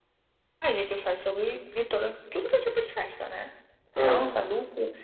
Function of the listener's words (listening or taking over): listening